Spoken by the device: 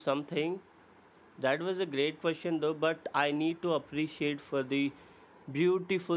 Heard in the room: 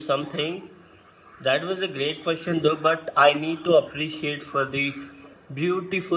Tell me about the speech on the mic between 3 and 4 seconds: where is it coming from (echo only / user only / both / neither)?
echo only